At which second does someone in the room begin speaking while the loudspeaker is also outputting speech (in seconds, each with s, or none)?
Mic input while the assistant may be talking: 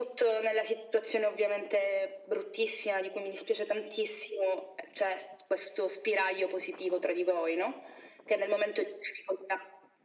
none